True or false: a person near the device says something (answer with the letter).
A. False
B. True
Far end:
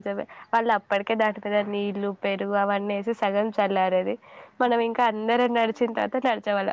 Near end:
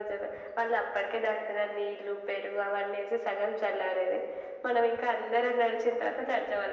A